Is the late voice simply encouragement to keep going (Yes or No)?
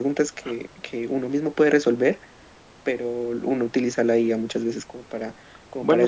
Yes